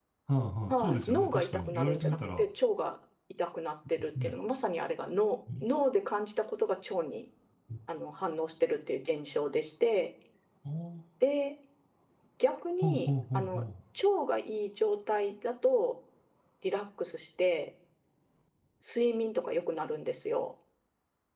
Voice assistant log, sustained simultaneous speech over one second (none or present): present